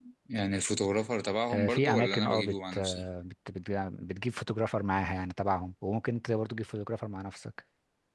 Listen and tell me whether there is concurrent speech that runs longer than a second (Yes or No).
Yes